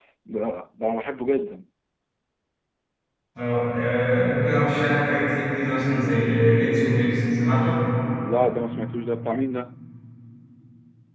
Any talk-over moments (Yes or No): No